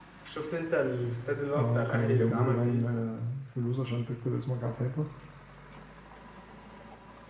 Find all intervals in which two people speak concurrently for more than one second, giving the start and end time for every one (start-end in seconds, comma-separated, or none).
1.6-3.0